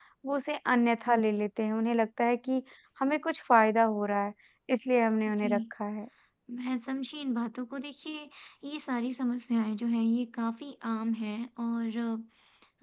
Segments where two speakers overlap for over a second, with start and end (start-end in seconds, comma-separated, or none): none